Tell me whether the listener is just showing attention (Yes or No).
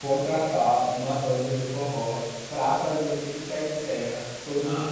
No